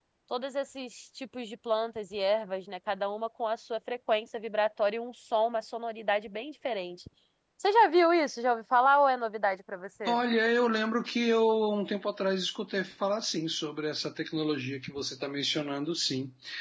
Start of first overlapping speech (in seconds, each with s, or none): none